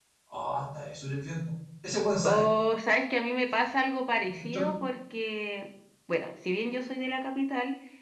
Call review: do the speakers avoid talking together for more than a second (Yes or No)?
Yes